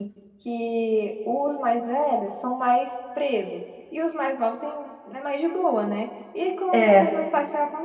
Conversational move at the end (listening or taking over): listening